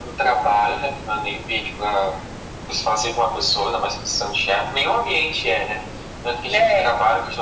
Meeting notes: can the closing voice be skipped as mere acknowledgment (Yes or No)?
Yes